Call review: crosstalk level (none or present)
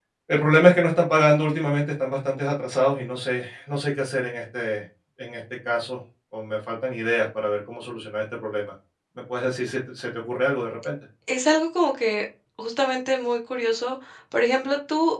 none